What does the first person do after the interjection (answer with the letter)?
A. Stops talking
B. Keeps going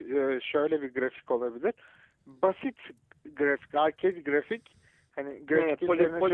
A